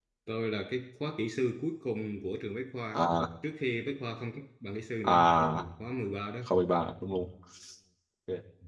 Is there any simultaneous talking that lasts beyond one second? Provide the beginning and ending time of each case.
none

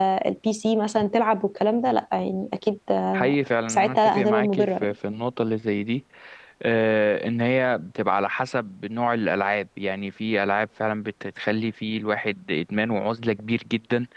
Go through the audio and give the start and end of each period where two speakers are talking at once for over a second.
3.7-4.9

